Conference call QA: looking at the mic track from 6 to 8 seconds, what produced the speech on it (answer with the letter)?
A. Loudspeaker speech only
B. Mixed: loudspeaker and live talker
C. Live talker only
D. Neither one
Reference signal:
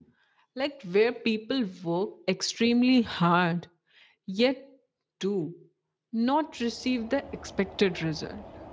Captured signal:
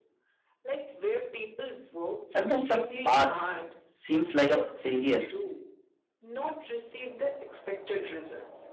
A